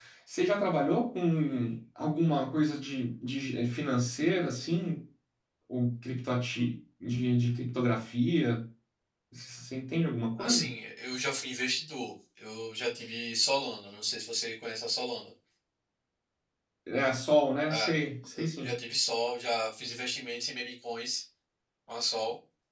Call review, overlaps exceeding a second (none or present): none